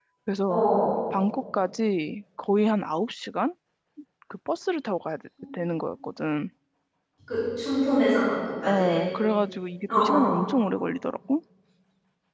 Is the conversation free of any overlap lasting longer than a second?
Yes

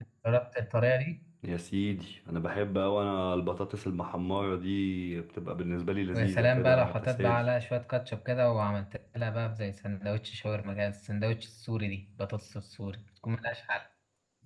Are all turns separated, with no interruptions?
No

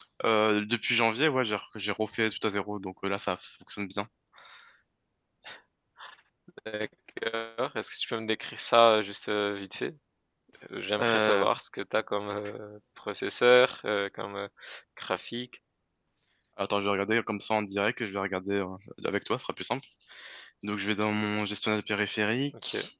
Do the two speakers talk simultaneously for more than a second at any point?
No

